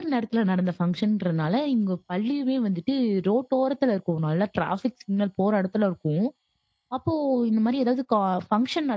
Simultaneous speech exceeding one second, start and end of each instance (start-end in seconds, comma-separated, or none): none